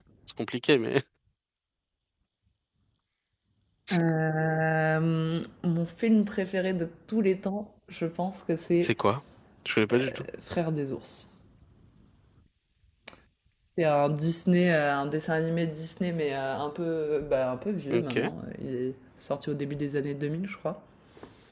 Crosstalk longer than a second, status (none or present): none